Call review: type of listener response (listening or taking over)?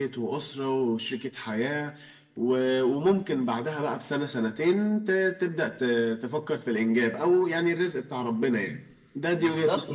taking over